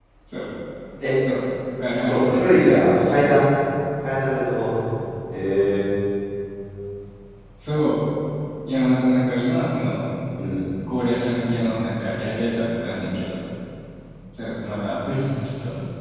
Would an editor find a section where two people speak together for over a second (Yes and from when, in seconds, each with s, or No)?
Yes, from 2.0 s